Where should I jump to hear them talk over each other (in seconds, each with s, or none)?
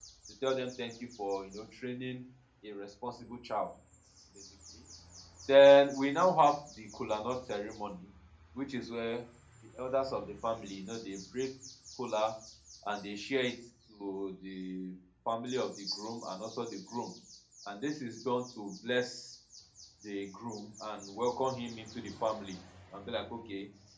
none